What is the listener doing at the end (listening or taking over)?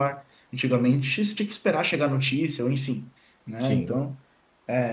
listening